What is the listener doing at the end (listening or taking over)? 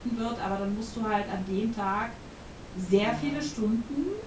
listening